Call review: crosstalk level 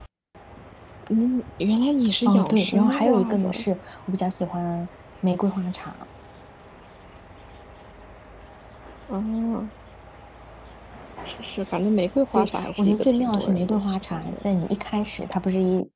present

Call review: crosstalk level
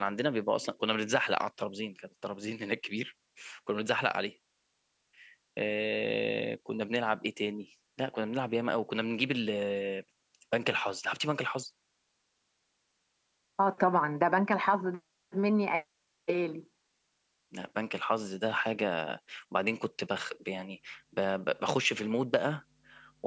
none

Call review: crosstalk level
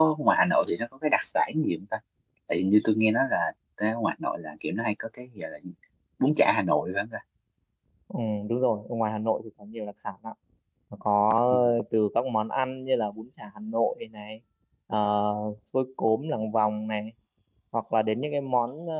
none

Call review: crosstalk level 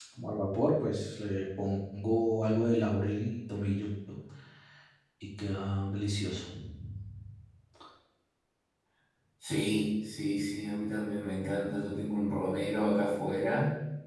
none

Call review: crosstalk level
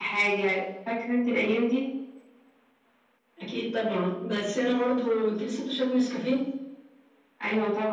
none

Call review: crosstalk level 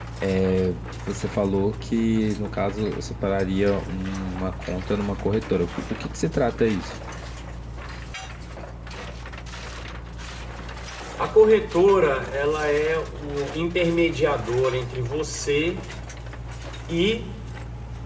none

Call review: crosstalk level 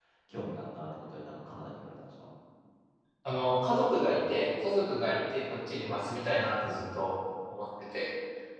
none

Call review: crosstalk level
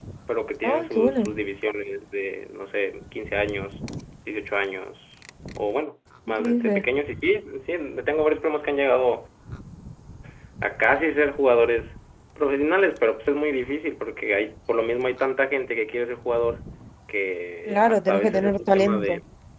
present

